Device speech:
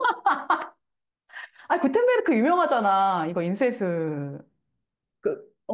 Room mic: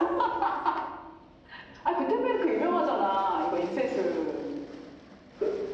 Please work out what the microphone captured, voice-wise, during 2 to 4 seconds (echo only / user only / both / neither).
echo only